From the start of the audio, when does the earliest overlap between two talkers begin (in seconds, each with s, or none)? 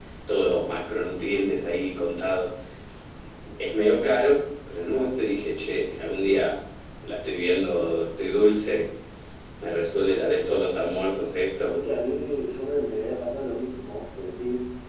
none